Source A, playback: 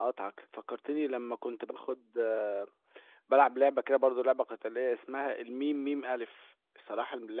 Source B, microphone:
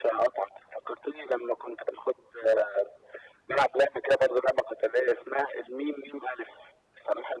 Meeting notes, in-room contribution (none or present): none